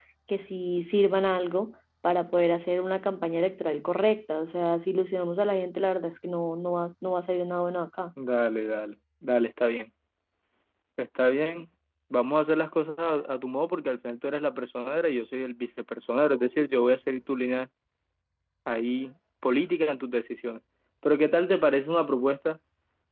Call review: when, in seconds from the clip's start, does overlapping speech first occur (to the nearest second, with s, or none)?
none